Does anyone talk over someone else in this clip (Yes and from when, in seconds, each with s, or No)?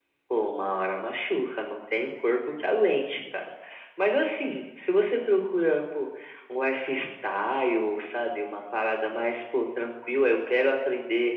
No